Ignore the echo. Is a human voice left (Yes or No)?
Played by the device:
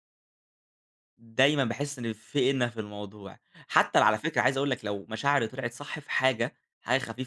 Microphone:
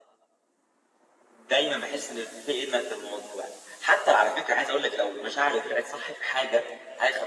No